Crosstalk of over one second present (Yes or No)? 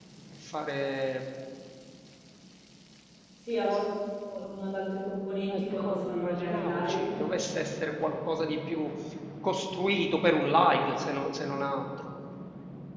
Yes